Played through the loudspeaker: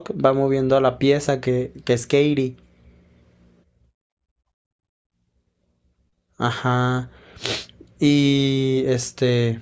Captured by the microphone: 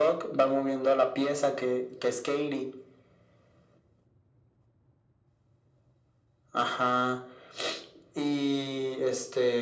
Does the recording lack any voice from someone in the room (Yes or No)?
Yes